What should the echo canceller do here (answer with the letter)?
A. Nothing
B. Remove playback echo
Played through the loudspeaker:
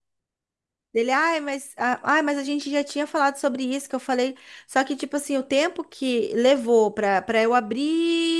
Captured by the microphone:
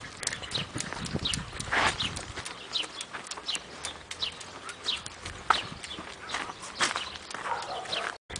A